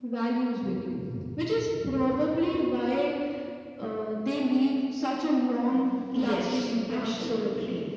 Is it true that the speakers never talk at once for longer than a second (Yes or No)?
No